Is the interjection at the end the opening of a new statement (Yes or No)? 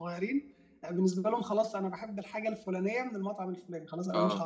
Yes